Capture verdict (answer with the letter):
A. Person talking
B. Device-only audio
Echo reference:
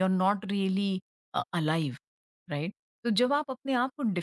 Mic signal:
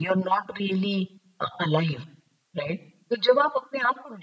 B